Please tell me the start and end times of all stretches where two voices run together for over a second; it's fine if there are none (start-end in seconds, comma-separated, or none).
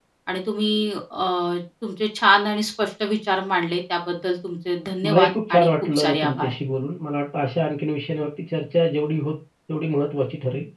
5.0-6.5